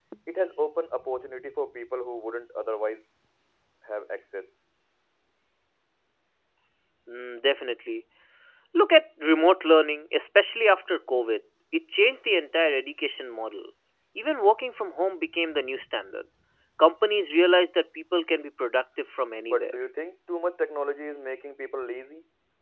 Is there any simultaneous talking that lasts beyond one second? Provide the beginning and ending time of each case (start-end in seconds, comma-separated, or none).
none